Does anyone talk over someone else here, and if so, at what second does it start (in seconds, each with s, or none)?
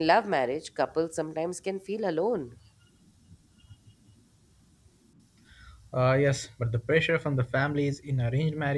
none